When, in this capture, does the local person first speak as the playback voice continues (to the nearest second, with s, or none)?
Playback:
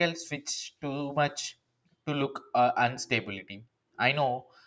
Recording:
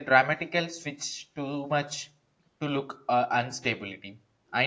none